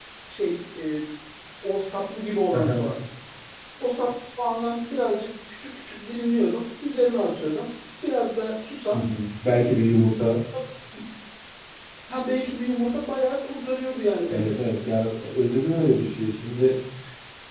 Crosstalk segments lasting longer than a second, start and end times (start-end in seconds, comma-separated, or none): none